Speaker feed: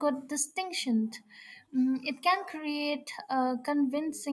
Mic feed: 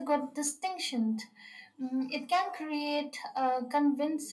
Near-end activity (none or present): none